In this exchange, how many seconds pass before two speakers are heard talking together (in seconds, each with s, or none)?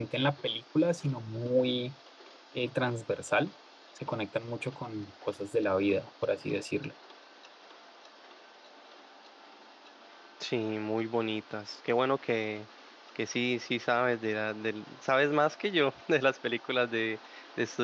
none